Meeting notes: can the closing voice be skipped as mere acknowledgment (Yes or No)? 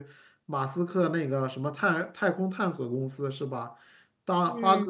Yes